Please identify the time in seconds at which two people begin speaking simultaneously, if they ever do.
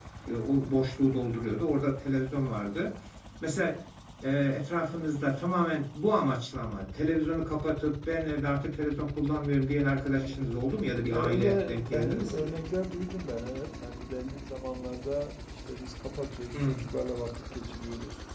11.1 s

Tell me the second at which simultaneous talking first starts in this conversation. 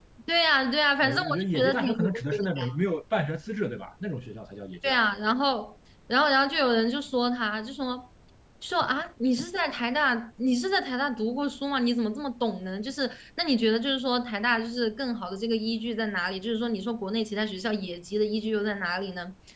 1.0 s

